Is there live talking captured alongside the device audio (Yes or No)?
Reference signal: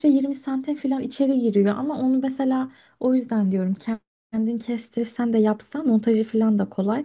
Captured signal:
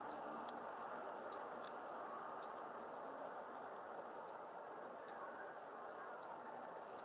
No